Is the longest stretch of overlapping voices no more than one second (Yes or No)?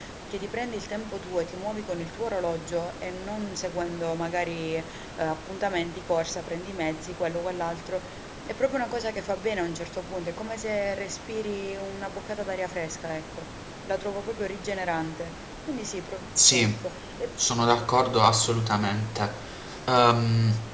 Yes